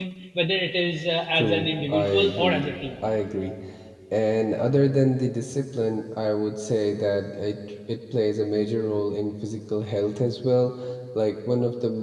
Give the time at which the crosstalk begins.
1.3 s

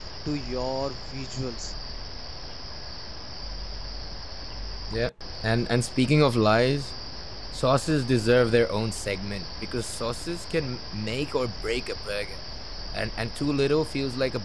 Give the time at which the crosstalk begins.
none

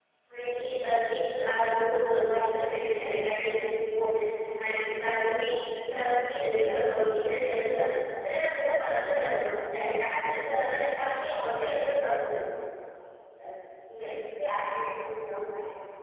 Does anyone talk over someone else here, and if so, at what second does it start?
none

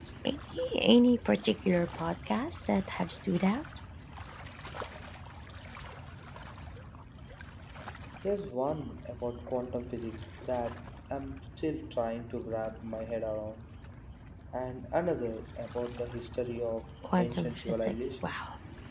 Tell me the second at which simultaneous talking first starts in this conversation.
17.0 s

